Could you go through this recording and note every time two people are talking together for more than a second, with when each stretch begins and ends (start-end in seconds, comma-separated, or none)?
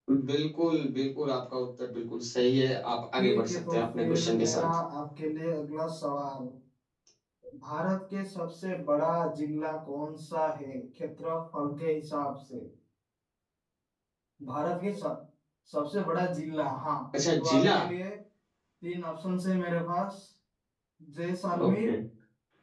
3.2-4.7